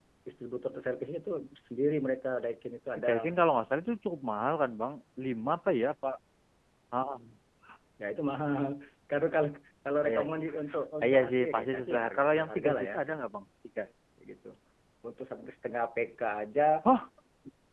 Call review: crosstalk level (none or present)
present